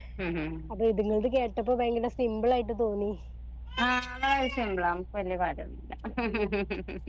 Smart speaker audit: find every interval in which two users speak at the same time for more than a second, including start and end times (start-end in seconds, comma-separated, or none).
none